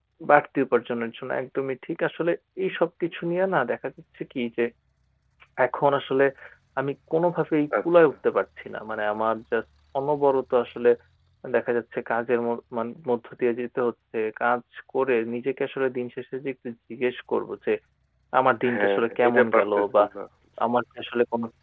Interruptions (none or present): present